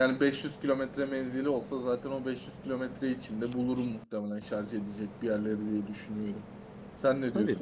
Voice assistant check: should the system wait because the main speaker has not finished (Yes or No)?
No